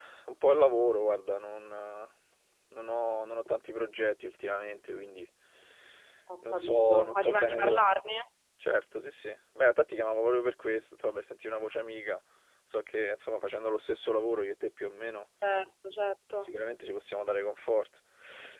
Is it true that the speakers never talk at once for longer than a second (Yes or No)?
No